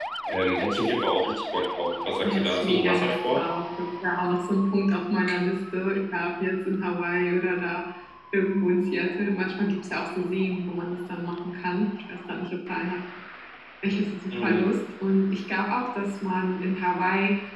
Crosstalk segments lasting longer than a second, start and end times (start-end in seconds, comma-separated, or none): 2.2-3.5